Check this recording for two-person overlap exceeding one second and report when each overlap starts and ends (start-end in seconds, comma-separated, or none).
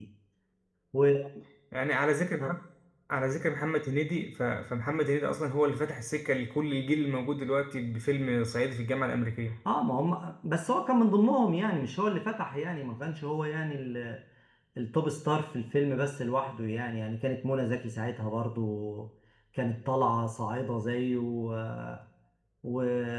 none